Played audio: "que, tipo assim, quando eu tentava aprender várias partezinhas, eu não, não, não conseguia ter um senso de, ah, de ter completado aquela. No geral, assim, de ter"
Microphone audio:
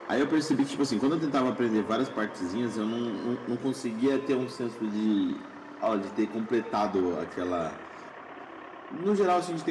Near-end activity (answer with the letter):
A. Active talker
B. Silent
B